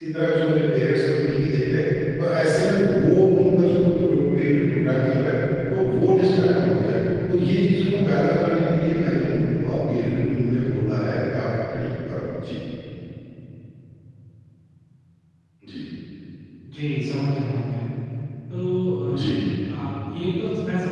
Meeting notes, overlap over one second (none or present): none